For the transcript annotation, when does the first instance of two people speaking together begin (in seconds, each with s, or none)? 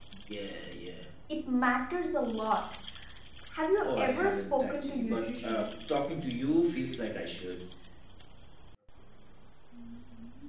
3.8 s